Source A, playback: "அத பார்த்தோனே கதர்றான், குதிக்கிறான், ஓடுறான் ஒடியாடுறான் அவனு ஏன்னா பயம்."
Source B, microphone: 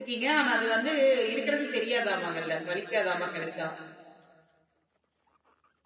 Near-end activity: present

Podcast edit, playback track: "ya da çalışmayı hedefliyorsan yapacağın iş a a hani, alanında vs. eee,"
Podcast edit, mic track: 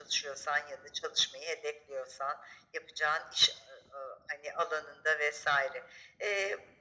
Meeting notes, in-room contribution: none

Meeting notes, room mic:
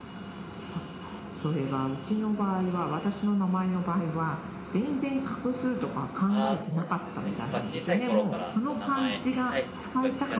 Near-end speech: present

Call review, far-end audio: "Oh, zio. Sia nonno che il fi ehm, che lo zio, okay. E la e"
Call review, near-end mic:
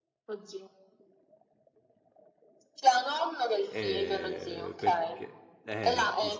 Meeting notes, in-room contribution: present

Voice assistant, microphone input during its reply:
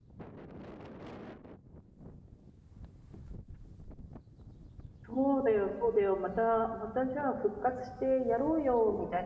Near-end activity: present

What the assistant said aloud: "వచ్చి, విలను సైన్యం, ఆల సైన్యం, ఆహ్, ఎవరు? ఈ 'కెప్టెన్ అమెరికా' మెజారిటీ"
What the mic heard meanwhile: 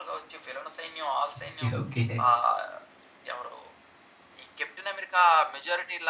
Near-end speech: present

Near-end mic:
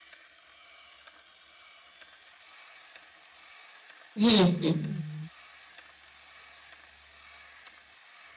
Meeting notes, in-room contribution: present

